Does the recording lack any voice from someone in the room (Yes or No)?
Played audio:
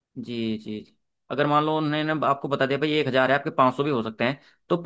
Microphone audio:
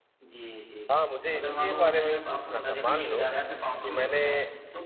No